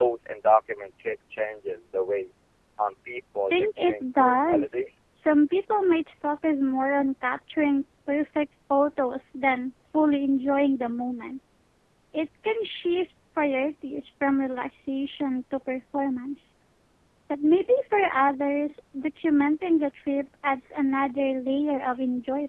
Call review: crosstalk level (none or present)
present